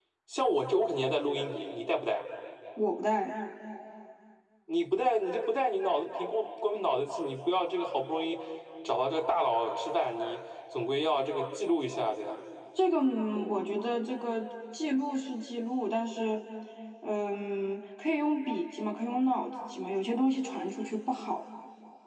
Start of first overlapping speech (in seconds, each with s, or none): none